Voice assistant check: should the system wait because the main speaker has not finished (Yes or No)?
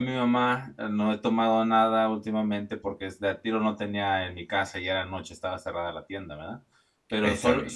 Yes